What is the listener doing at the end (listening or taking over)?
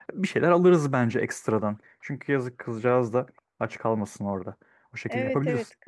taking over